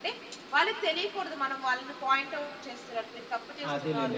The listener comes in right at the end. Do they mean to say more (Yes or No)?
Yes